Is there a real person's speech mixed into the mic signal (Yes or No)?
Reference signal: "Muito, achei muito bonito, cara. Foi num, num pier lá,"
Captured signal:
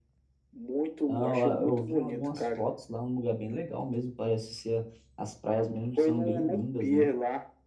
Yes